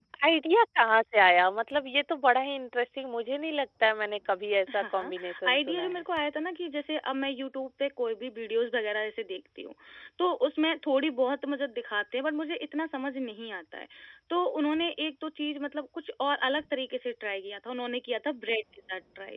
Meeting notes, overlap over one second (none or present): present